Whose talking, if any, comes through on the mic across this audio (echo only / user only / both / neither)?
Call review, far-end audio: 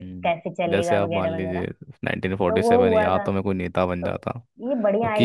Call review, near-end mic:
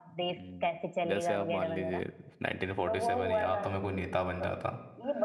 echo only